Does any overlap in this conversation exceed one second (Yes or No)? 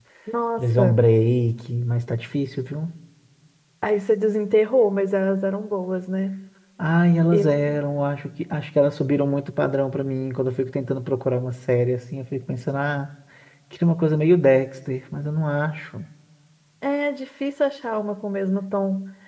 No